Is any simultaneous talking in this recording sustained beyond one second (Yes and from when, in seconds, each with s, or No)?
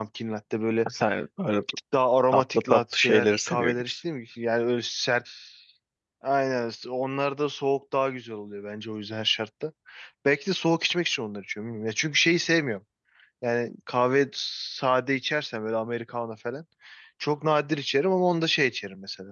Yes, from 2.3 s